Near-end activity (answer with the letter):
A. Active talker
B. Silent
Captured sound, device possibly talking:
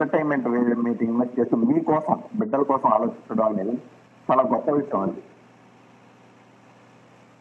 B